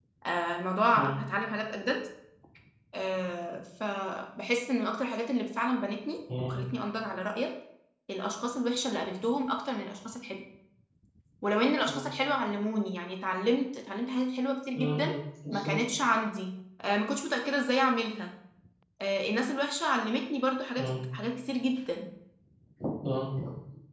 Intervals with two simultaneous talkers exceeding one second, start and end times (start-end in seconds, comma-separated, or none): none